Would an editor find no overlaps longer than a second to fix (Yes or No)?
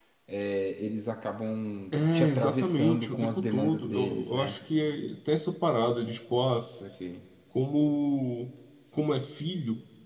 No